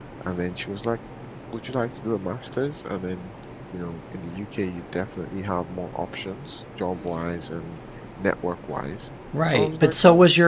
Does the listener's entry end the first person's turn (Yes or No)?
Yes